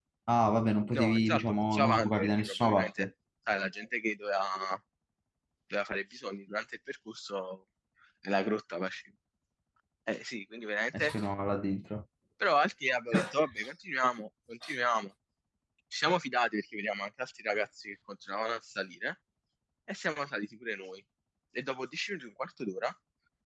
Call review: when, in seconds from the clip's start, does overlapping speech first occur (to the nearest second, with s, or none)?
1 s